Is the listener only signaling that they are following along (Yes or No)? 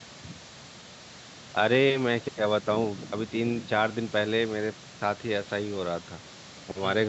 Yes